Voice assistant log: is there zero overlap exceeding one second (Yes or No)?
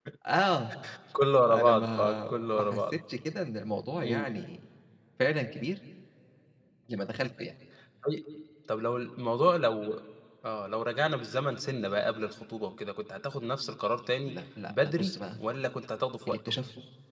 No